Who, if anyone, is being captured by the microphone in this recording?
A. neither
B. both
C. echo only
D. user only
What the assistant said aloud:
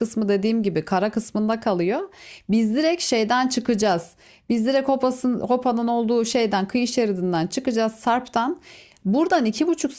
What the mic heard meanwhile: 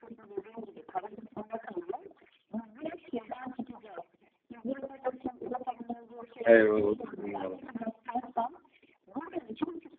B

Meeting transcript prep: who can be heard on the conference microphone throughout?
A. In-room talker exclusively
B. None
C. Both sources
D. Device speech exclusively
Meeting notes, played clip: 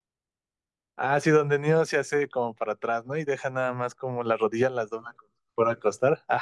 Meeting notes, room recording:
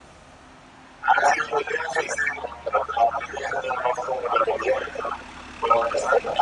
D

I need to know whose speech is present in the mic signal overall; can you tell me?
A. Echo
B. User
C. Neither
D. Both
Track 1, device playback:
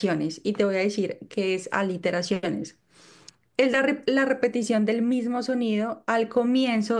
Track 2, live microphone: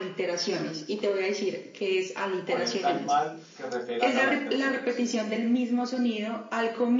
D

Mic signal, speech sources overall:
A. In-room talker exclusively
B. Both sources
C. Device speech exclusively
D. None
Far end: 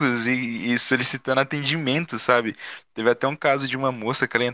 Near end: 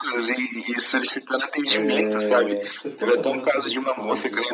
B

